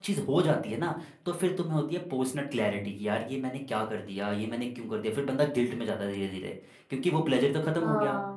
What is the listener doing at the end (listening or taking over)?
listening